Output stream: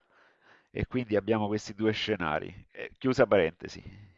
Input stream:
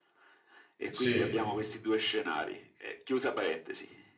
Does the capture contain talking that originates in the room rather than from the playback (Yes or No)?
Yes